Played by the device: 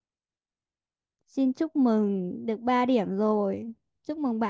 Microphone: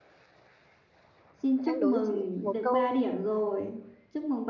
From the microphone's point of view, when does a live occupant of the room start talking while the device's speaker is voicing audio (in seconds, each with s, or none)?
1.6 s